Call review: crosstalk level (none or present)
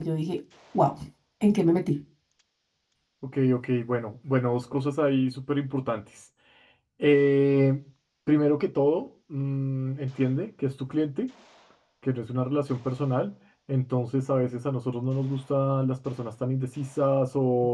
none